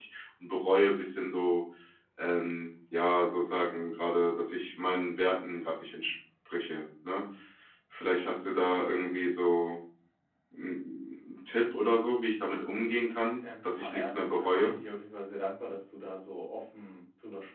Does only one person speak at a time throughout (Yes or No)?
No